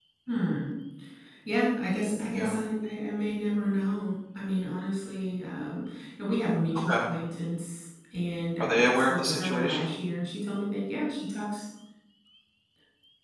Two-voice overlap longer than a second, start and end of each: 8.6-9.9

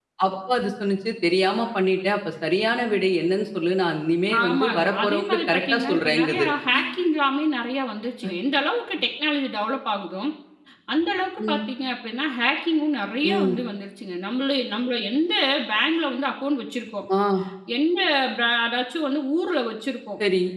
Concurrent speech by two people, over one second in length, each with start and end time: 4.4-6.5

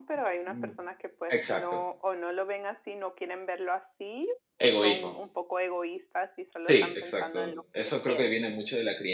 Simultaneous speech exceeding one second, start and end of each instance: 6.7-8.2

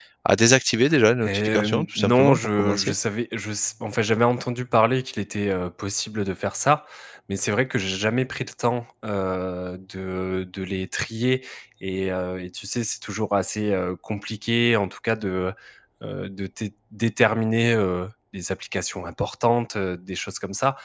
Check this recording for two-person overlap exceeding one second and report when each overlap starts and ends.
1.2-3.0

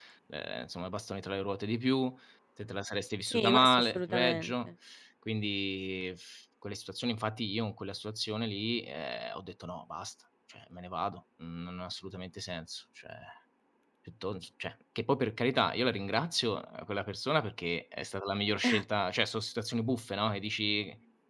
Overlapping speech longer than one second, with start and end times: 3.2-4.7

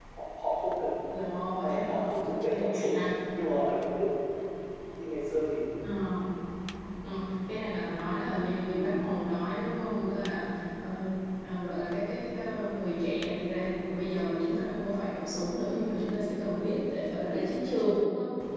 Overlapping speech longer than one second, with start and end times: 1.6-3.0

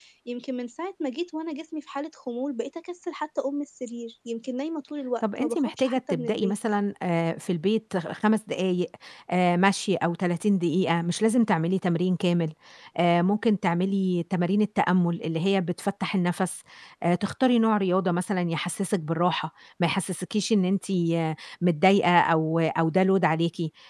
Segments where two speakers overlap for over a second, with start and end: 5.2-6.5

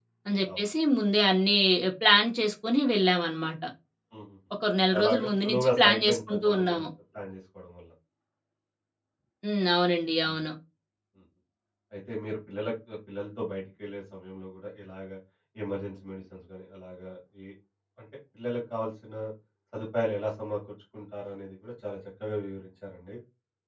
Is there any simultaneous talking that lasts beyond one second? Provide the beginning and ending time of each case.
5.0-6.8

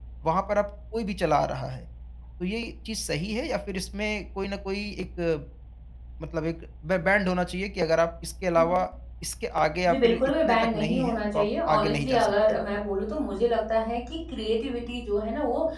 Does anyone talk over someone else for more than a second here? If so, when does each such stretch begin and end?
9.9-12.3

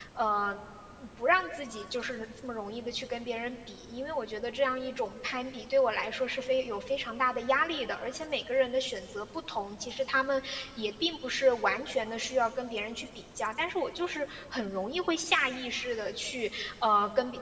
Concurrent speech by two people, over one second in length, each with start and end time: none

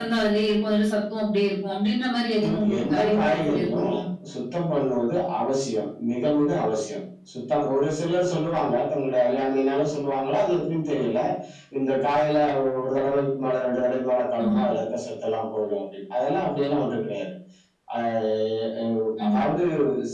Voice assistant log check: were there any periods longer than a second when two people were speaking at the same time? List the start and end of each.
2.4-3.9

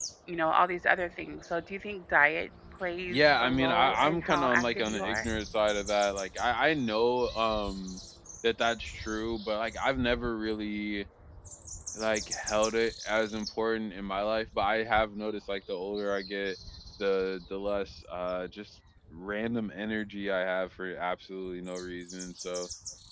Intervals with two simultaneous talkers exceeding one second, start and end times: 3.1-5.3

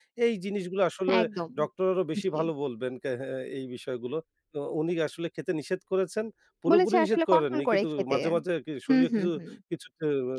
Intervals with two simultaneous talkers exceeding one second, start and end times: 6.7-8.2

